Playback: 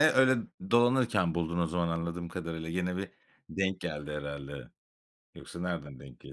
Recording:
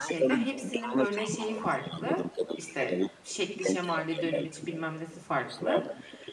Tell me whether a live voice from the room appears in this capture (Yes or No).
Yes